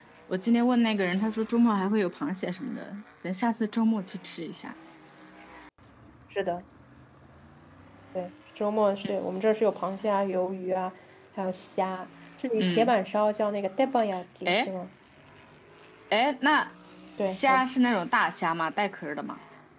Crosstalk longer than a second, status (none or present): none